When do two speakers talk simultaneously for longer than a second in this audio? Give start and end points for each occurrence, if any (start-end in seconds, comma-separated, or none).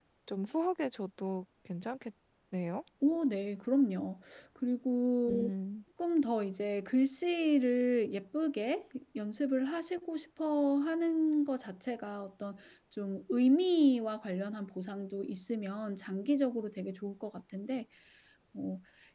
none